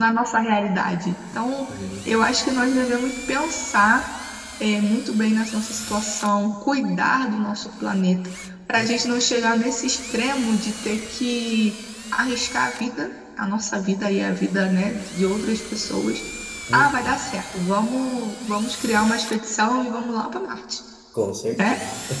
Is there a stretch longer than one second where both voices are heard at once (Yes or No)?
No